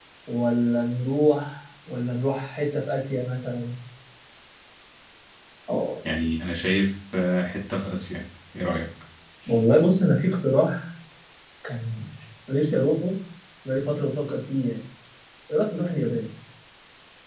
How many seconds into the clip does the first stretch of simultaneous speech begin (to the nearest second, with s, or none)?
none